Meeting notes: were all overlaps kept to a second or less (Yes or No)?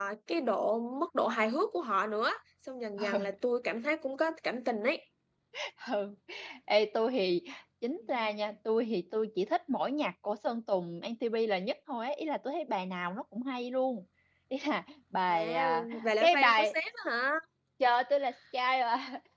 No